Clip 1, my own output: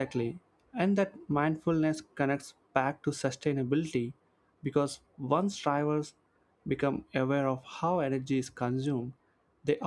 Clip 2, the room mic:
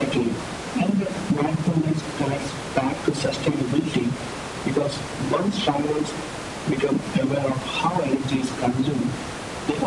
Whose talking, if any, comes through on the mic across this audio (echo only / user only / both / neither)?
echo only